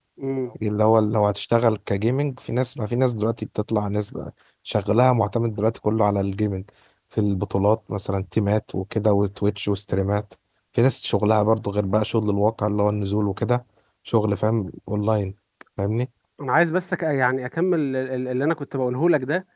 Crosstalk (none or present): none